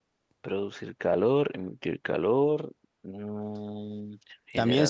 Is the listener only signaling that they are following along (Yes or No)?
No